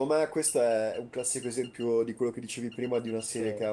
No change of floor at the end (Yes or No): Yes